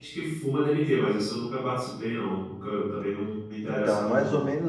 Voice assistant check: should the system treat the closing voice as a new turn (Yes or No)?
Yes